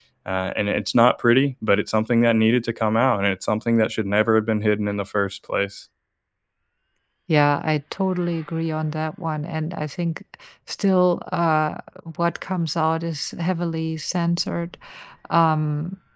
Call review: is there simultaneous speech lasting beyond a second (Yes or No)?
No